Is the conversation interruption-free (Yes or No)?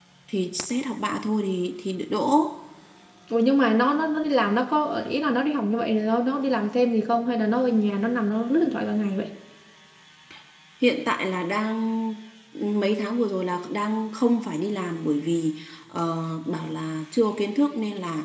Yes